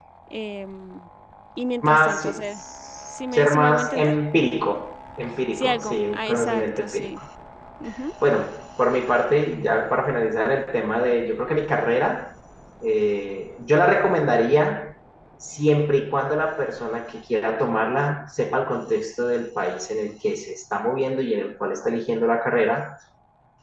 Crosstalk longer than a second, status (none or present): present